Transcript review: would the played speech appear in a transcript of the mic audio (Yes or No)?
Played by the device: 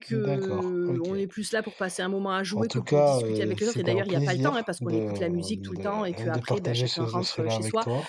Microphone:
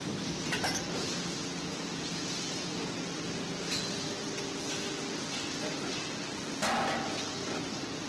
No